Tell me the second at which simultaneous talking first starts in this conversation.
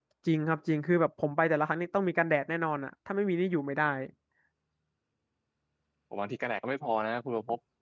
none

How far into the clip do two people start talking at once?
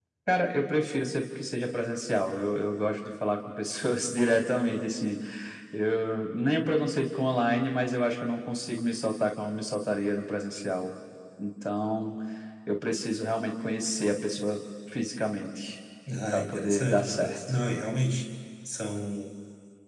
16.3 s

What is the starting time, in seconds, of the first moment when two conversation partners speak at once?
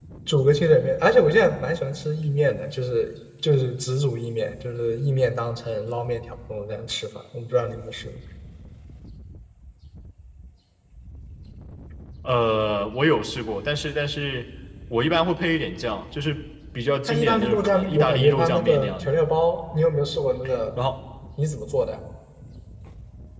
17.1 s

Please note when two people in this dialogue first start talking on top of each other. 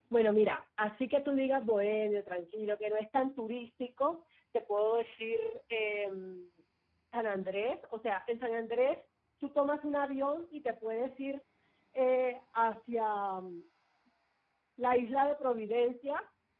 none

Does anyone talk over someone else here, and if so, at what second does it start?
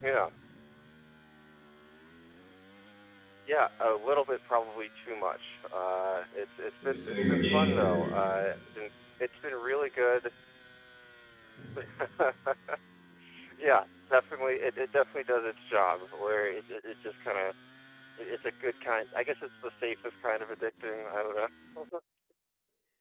6.8 s

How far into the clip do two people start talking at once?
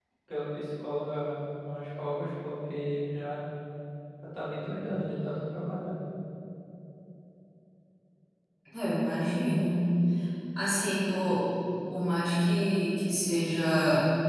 none

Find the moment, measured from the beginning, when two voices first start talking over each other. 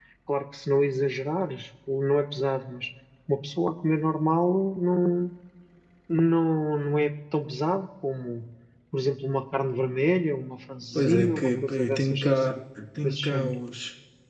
11.0 s

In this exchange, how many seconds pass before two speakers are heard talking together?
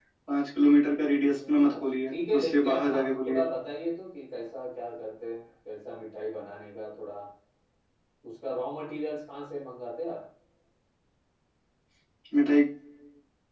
1.3 s

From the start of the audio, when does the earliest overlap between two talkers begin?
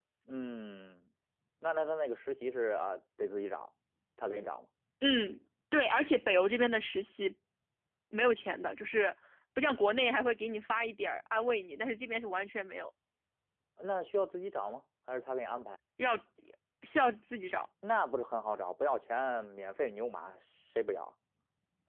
none

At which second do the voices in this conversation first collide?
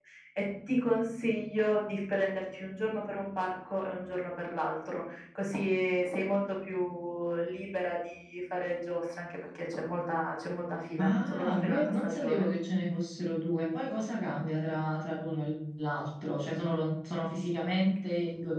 11.0 s

